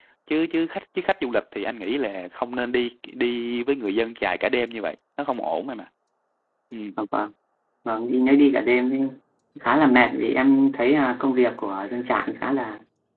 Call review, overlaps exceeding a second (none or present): none